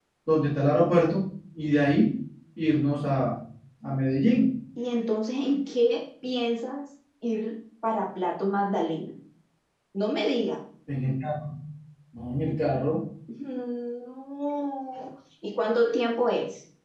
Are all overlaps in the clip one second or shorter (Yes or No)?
Yes